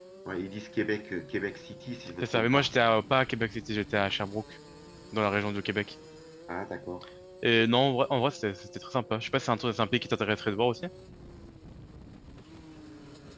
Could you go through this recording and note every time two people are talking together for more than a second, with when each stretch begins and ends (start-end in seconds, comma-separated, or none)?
none